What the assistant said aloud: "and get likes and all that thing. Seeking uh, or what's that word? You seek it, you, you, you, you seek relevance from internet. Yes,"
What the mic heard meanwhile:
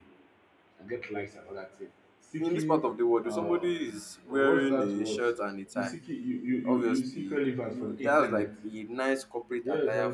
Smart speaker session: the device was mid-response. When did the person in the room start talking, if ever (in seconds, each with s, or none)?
2.4 s